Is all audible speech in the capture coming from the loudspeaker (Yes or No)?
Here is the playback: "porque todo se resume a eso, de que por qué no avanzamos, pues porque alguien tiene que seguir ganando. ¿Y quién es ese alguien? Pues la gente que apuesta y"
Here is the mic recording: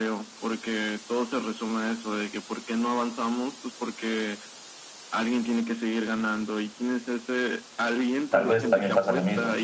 No